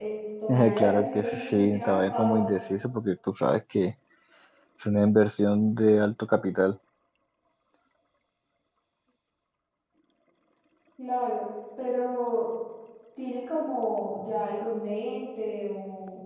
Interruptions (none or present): present